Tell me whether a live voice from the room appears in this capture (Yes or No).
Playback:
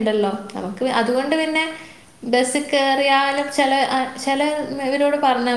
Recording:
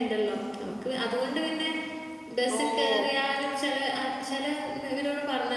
Yes